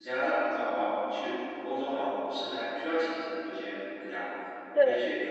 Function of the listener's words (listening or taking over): listening